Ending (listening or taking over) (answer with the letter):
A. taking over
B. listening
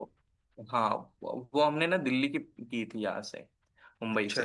B